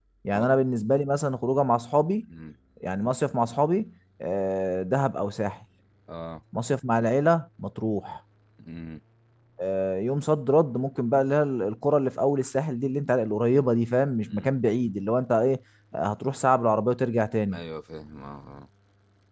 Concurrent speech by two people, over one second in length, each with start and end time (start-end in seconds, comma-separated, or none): none